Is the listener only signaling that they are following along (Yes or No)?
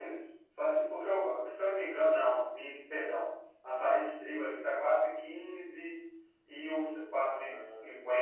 Yes